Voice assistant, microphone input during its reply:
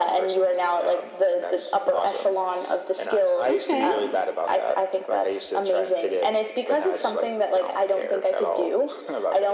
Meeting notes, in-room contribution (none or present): present